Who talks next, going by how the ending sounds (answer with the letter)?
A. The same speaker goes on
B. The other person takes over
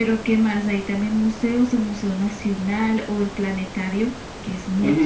B